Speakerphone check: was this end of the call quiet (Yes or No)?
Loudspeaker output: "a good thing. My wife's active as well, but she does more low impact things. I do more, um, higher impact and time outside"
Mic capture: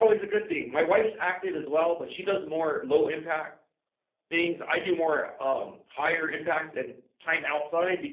Yes